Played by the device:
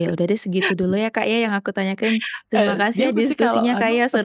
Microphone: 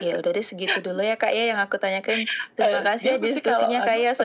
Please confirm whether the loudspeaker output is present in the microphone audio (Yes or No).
Yes